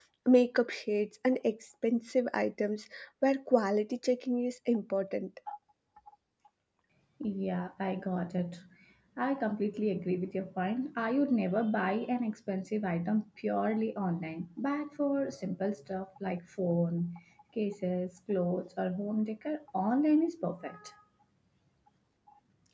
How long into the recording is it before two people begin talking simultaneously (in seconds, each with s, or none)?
none